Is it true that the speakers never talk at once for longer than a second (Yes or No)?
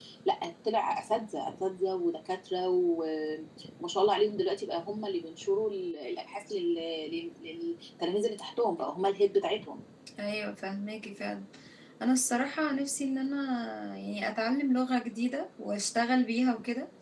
Yes